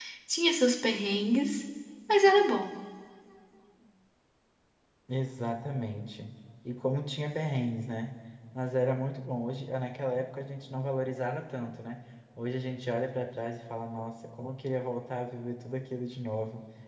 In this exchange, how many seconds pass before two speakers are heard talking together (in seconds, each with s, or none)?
none